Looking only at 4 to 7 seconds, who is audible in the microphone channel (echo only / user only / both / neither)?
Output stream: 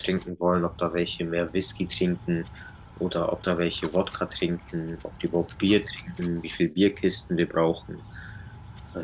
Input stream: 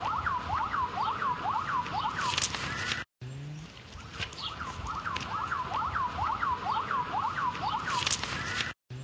neither